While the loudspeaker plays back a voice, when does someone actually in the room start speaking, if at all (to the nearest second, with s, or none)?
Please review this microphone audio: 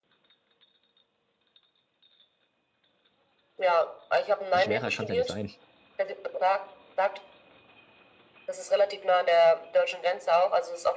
5 s